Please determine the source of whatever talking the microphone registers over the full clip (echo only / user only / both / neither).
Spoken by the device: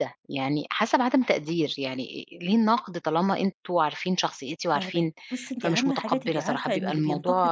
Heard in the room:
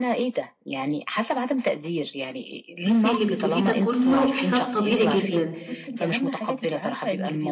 both